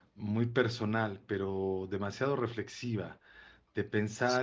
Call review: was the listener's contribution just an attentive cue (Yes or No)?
Yes